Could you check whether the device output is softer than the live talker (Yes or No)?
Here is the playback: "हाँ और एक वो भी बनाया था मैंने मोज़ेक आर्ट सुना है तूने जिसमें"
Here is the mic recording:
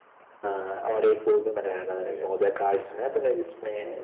No